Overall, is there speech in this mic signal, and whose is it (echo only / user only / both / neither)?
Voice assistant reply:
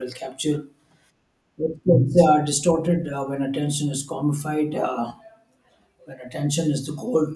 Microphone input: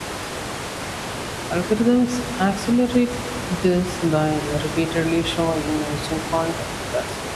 user only